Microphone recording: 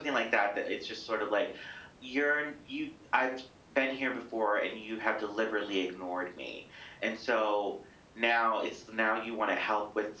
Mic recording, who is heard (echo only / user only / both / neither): echo only